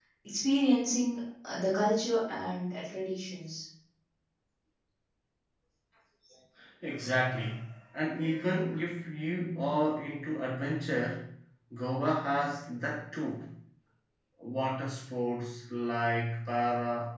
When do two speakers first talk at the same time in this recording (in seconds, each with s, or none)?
none